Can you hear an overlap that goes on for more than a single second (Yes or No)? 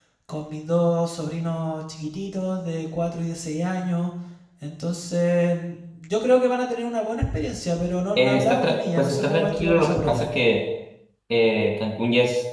Yes